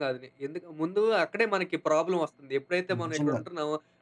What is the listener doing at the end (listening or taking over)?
listening